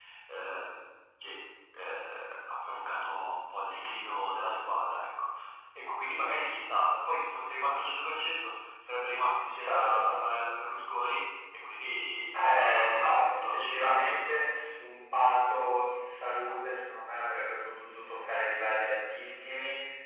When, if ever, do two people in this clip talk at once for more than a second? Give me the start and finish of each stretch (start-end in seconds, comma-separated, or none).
12.3-14.4